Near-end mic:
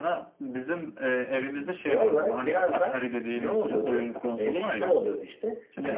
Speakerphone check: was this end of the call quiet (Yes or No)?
No